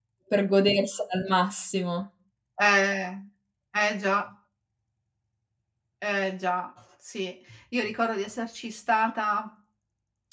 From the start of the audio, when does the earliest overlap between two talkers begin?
none

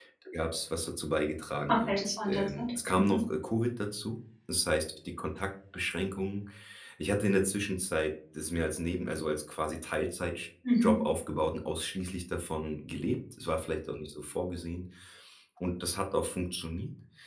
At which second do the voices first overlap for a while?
1.7 s

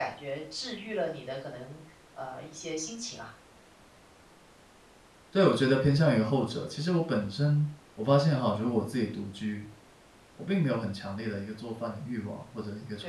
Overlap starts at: none

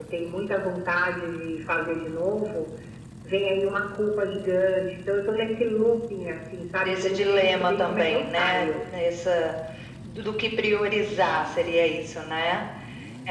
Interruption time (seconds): 6.8 s

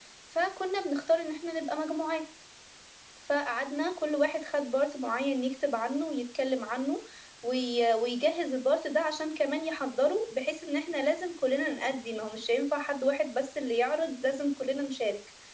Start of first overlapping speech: none

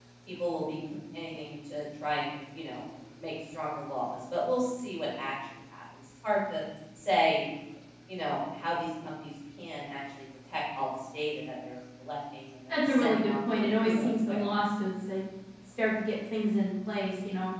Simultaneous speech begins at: 12.7 s

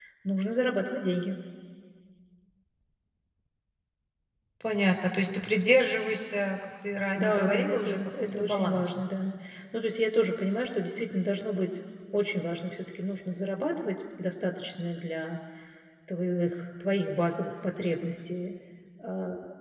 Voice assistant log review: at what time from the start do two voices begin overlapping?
7.2 s

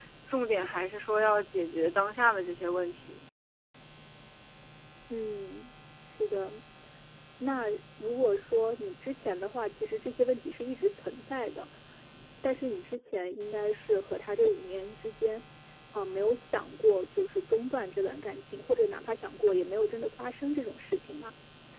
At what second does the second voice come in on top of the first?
none

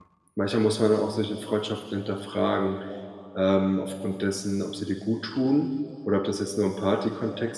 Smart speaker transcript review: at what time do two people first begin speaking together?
none

